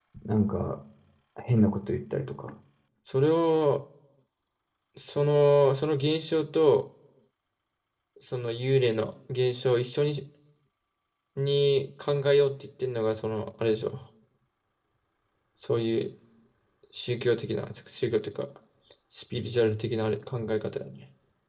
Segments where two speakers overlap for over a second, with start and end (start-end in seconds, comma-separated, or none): none